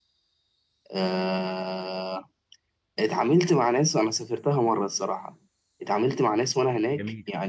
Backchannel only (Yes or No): Yes